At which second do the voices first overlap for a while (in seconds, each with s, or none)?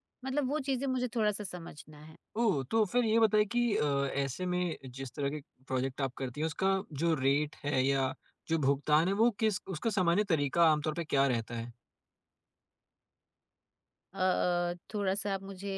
none